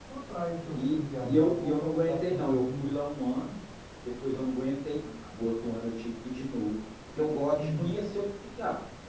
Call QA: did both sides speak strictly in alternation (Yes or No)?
No